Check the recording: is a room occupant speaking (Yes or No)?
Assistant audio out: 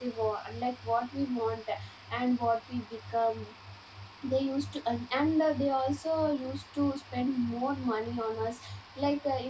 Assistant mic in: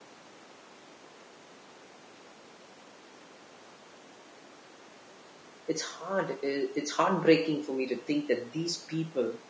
Yes